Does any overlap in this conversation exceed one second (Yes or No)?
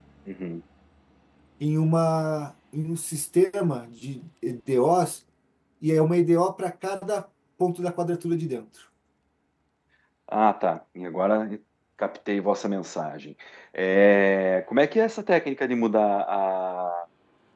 No